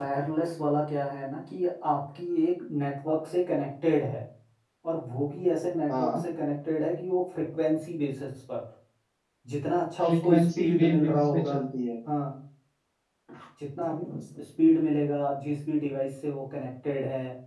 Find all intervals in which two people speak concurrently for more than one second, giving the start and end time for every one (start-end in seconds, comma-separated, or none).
10.0-11.6